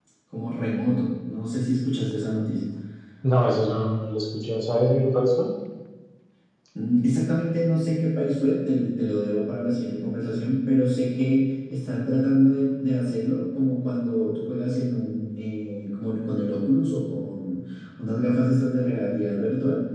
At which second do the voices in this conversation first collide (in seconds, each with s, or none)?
none